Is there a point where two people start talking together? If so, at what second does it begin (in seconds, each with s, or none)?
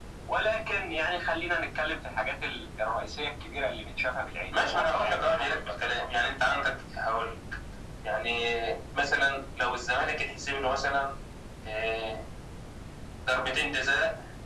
4.5 s